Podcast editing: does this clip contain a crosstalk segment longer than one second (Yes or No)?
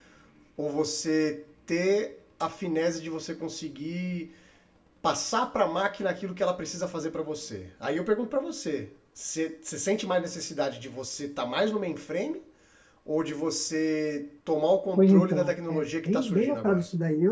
Yes